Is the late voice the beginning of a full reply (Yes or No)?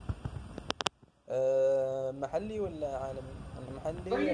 Yes